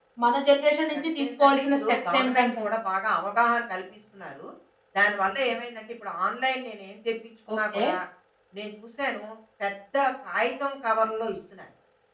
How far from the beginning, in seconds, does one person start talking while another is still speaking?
0.9 s

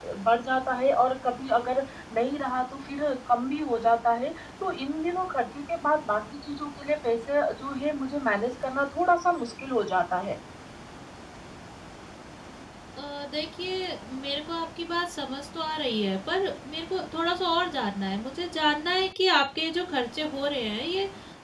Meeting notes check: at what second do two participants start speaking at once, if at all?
none

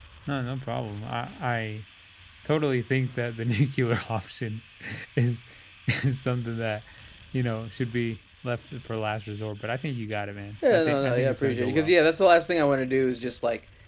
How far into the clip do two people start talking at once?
10.6 s

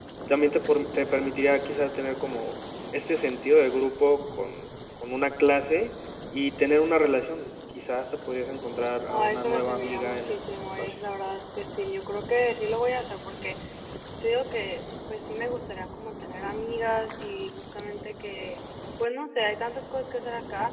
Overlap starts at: 9.1 s

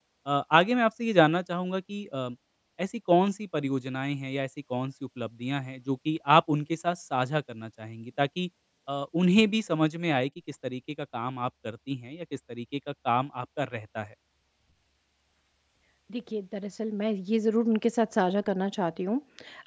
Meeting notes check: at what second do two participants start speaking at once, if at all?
none

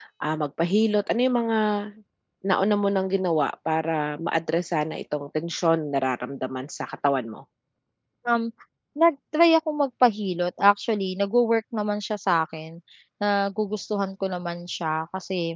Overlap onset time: none

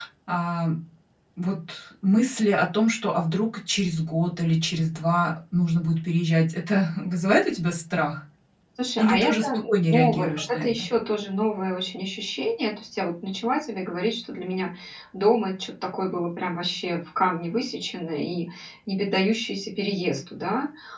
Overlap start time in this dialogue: 9.0 s

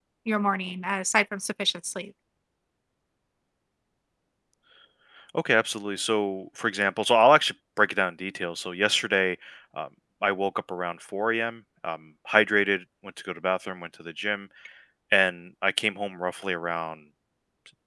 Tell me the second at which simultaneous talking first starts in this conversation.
none

